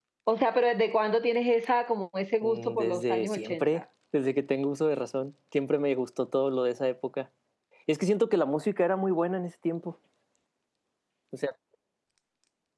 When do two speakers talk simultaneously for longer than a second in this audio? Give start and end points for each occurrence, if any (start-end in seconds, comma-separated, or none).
2.4-3.8